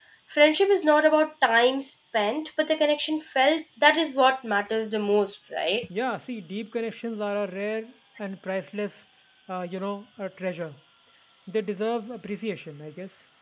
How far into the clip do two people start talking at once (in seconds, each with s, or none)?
none